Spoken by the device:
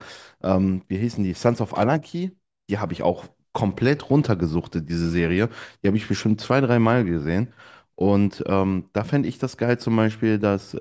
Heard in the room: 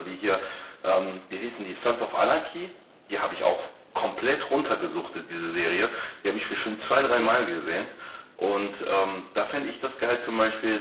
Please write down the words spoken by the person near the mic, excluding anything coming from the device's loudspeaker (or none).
Kennst du das?